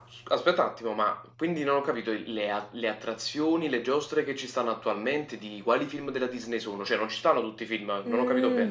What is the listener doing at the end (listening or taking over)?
taking over